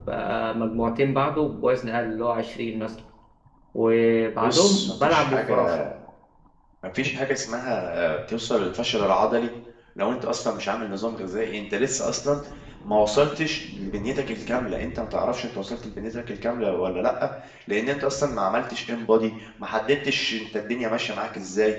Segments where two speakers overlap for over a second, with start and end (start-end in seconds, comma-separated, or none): 4.4-5.8